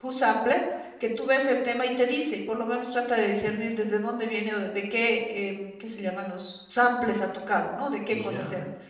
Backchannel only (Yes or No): Yes